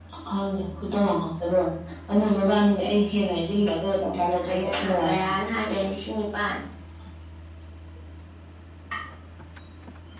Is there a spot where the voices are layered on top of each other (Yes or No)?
Yes